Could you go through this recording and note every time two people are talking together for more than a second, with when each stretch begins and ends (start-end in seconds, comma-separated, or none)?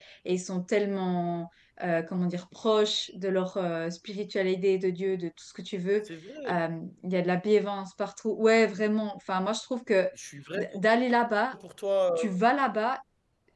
none